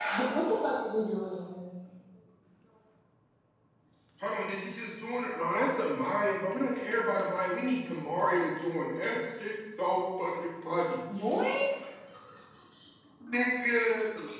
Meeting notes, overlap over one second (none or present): none